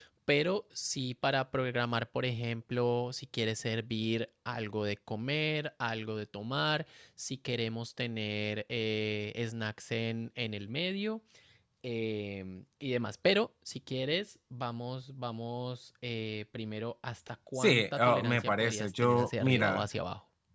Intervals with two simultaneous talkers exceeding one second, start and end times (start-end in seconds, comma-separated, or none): 17.6-19.8